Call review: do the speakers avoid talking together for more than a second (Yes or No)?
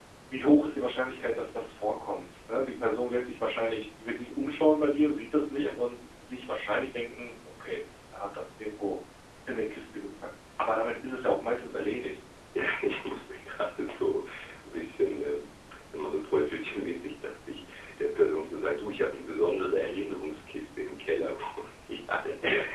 Yes